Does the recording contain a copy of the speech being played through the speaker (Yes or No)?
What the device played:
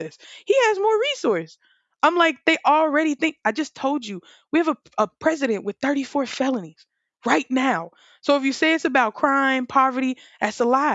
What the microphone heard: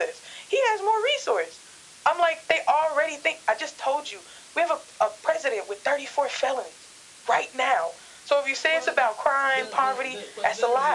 Yes